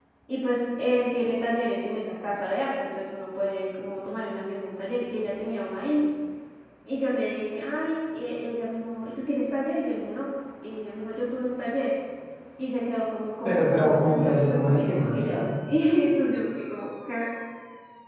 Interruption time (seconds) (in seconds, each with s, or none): 13.4 s